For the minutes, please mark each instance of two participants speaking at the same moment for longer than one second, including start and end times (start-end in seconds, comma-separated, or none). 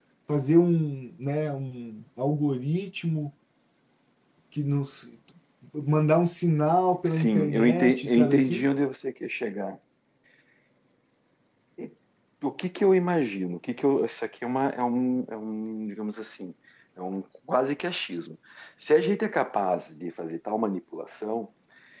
7.0-8.6